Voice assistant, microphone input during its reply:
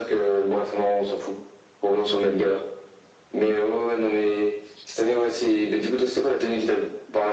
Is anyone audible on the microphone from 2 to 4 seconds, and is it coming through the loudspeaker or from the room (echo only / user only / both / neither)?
echo only